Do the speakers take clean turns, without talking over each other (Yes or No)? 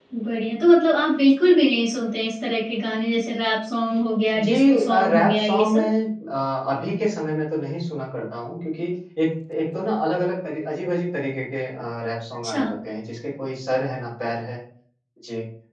No